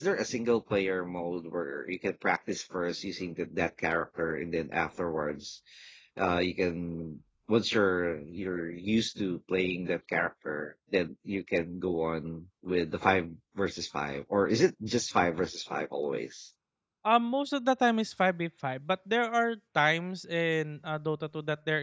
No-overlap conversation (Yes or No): Yes